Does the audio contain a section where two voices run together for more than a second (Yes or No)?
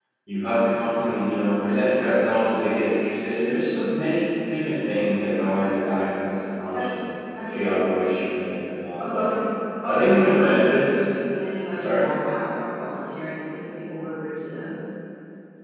Yes